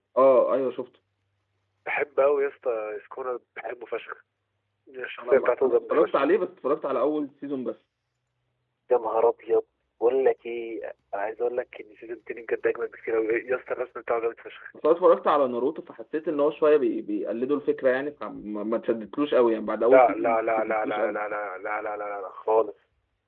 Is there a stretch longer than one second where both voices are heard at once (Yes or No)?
Yes